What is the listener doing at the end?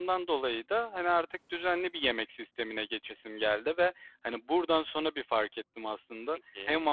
listening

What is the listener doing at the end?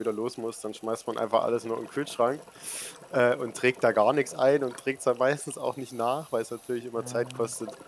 listening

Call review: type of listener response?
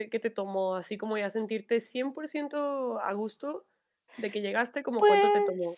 taking over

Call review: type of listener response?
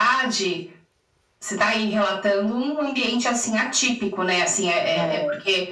listening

